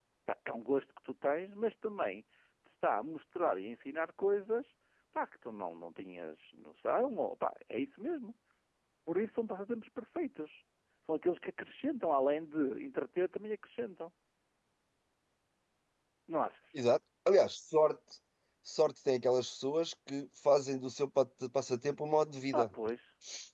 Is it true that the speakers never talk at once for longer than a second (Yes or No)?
Yes